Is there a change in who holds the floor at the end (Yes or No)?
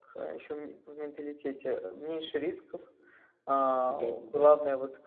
No